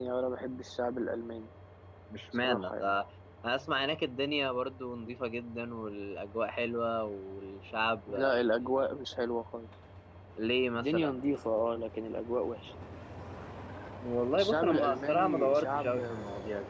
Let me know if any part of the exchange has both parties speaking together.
Yes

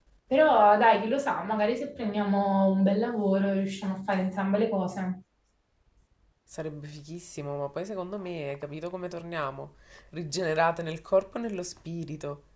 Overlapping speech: No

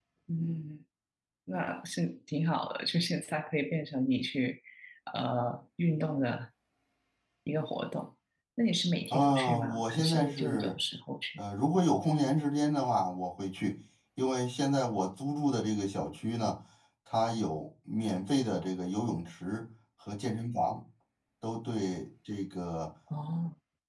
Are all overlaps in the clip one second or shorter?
No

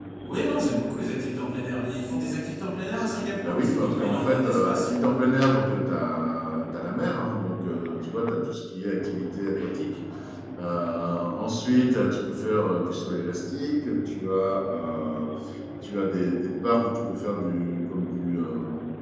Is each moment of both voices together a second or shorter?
No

